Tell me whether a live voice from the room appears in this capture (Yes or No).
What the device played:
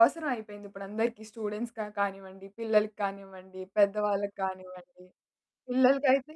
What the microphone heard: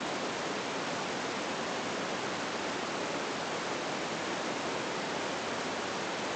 No